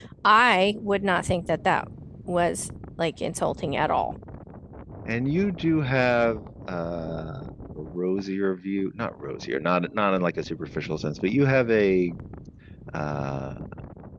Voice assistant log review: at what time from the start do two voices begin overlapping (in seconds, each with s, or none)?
none